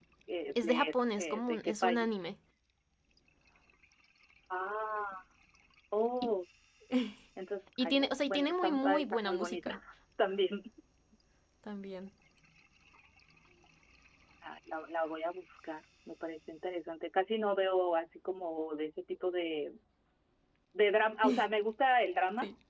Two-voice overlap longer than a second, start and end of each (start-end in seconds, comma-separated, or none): 0.6-2.1, 7.8-9.7